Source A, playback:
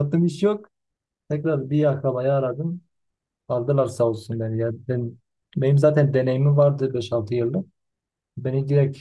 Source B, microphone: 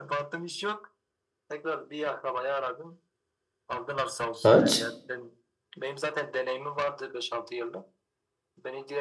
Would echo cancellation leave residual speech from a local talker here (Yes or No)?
Yes